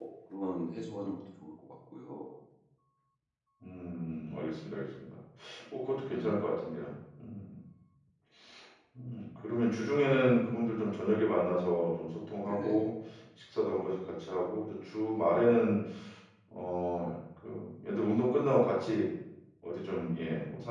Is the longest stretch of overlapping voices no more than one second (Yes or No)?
Yes